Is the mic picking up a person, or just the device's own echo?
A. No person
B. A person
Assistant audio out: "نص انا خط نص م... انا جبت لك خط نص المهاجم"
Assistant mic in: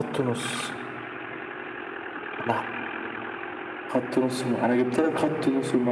A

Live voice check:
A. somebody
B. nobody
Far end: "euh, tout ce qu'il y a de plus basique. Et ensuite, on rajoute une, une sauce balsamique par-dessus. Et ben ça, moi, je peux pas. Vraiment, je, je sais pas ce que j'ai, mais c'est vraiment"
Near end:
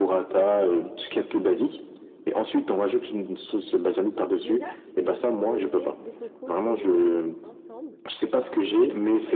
A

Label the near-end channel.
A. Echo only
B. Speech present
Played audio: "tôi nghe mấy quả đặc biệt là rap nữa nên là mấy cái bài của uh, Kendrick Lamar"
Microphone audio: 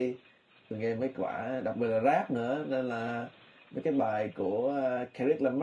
A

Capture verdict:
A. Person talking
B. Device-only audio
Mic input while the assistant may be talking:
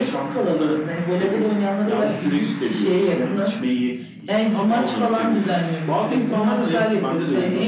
B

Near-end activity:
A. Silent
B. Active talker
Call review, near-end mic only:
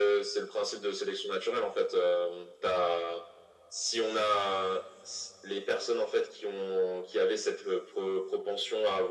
A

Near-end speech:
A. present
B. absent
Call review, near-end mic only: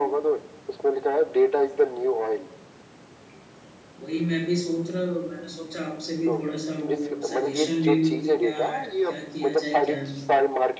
A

